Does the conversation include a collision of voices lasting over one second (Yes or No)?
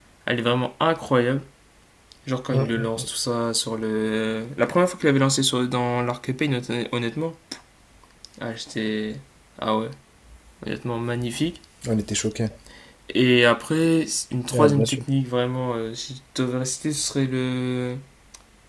No